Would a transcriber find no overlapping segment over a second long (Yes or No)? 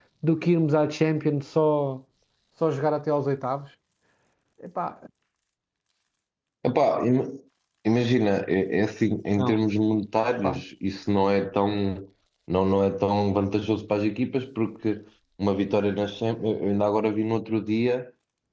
Yes